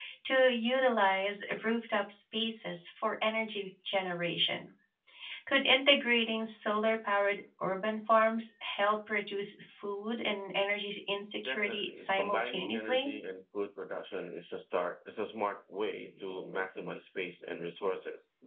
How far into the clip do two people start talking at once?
11.4 s

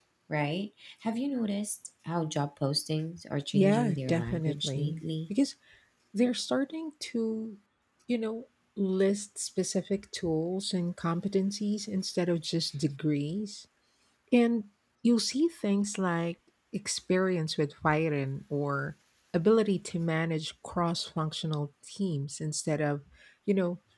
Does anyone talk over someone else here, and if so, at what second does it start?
3.5 s

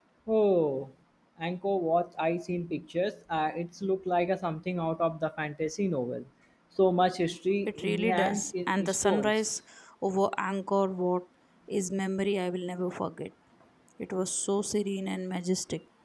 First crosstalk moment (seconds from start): 7.7 s

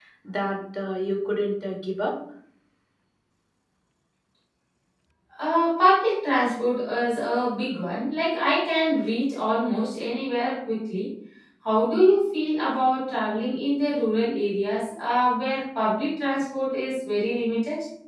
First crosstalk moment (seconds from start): none

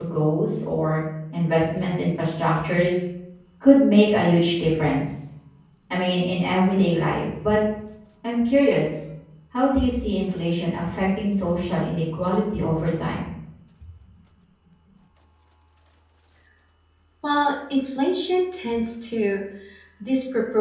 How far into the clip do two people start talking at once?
none

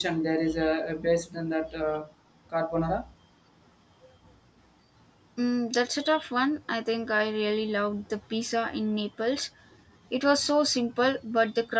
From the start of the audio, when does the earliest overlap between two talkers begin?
none

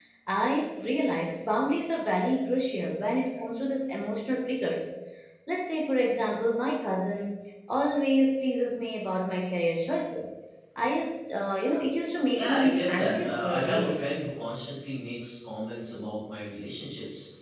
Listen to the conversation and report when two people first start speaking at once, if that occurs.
12.3 s

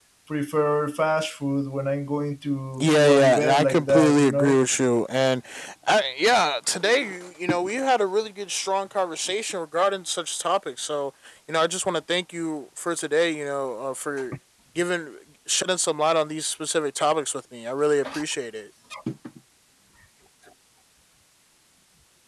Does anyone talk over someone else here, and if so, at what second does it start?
2.8 s

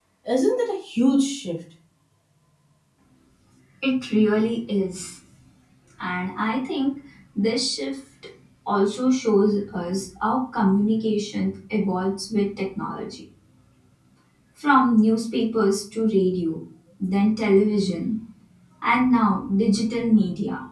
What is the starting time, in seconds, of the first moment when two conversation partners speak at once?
none

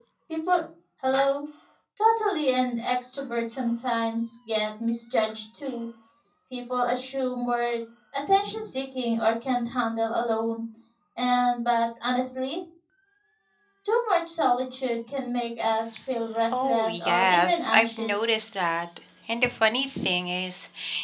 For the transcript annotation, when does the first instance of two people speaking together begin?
16.5 s

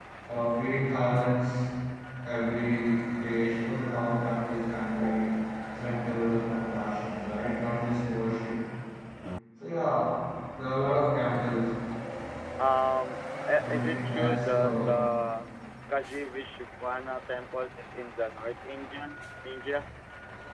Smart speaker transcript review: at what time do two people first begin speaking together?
13.6 s

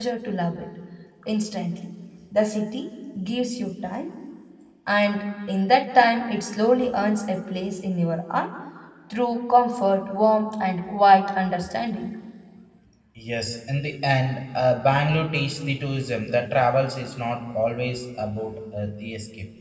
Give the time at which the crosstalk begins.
none

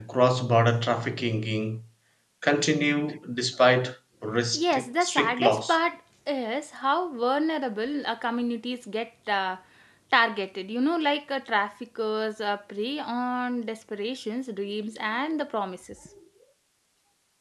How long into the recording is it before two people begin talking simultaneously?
4.5 s

